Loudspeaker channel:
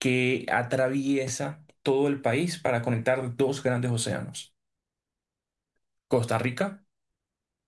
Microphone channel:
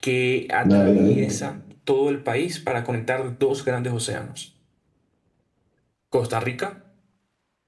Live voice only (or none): Dale, dale.